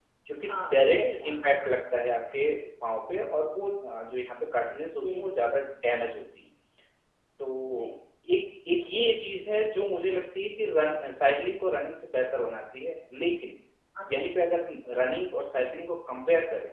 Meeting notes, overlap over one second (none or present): present